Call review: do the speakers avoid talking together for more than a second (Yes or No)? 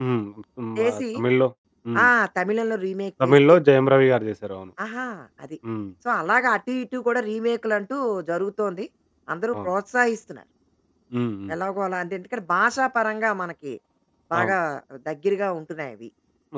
Yes